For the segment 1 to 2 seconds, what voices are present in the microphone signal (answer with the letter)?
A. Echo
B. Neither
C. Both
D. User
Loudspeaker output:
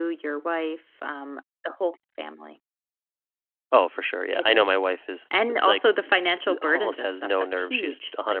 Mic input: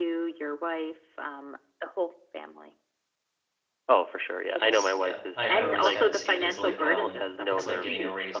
A